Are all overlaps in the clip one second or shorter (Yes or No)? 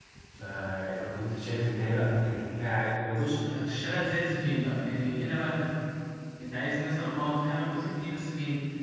Yes